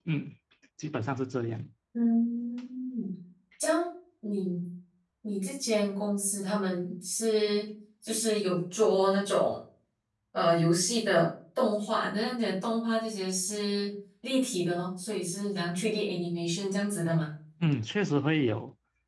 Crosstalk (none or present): none